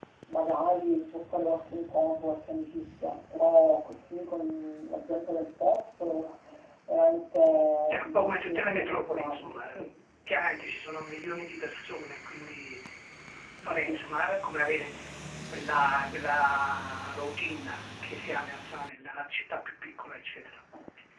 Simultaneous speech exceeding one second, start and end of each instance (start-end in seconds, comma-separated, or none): 7.9-9.5